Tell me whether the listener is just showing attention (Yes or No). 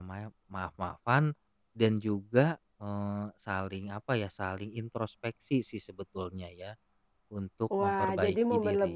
No